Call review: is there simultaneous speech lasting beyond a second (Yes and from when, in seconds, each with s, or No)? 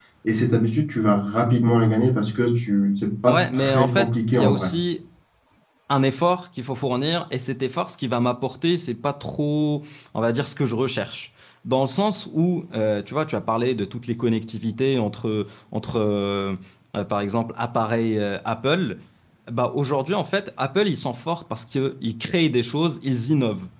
Yes, from 3.3 s